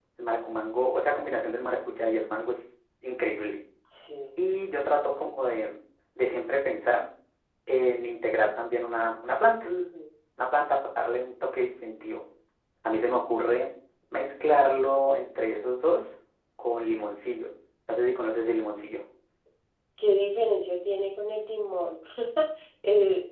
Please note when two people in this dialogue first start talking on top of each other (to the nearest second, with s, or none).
none